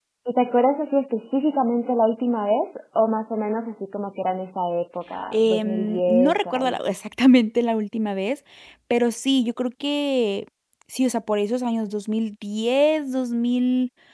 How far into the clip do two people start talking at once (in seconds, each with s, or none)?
5.3 s